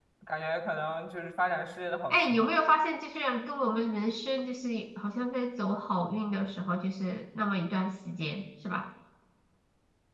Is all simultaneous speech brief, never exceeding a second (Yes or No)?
Yes